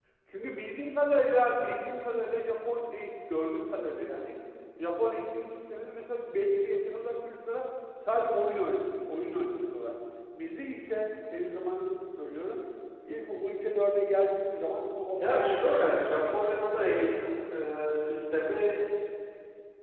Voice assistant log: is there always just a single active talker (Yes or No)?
No